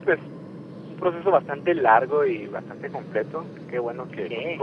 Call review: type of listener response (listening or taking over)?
listening